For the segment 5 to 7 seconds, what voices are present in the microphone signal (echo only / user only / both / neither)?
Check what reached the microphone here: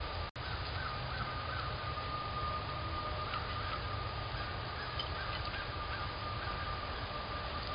neither